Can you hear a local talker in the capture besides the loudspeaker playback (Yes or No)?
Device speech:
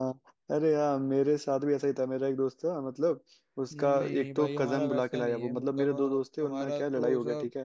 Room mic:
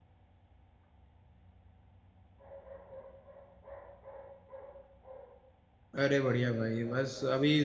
Yes